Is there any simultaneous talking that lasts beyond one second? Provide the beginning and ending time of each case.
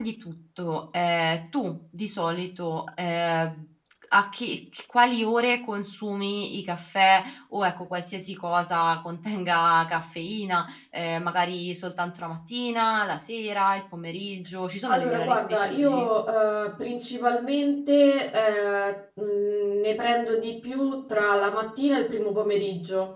14.9-16.1

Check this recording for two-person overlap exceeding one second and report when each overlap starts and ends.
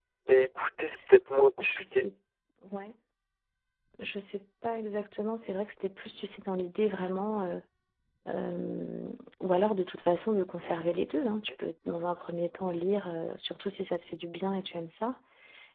none

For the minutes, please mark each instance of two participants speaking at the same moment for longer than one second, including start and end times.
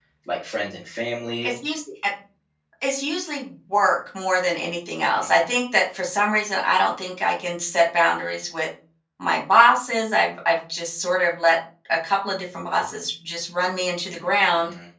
none

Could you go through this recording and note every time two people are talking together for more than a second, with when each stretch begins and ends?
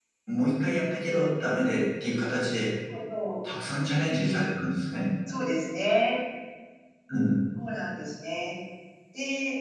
none

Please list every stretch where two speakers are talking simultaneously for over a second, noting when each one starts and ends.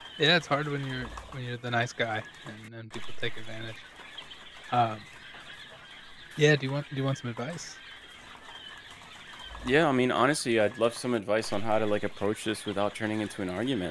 none

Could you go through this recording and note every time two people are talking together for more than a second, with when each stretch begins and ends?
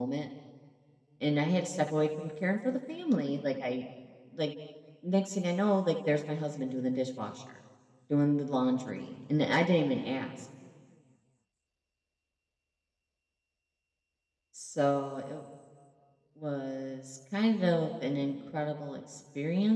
none

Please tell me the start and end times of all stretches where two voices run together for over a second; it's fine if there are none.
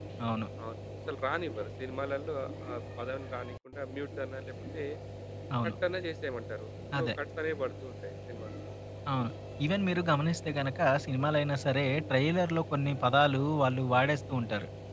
none

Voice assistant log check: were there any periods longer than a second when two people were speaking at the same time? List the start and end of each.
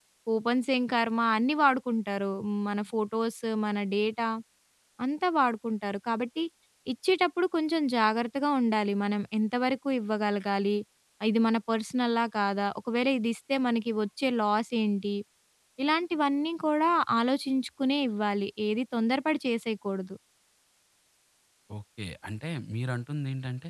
none

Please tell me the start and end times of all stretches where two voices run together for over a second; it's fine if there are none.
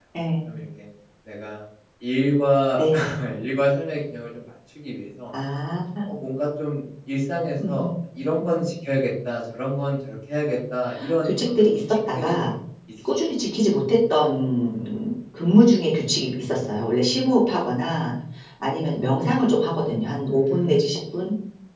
11.2-12.5

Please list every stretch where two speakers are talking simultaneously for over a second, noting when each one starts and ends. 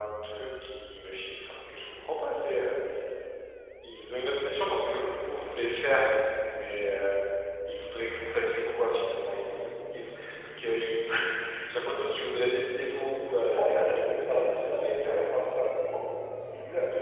13.6-15.2

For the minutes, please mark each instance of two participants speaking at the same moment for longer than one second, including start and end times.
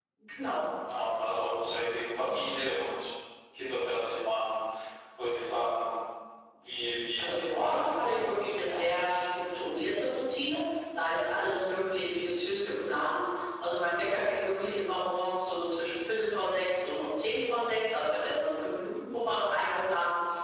7.2-9.1

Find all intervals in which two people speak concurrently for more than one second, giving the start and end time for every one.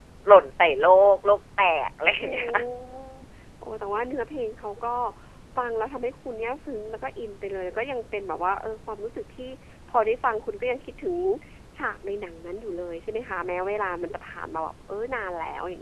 none

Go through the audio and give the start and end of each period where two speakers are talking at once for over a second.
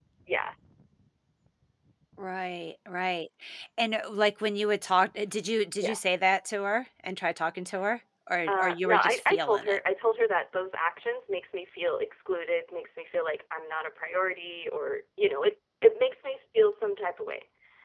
8.5-9.8

